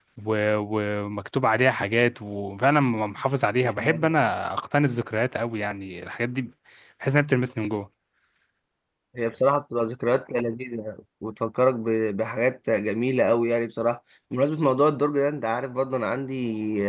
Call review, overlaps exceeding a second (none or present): none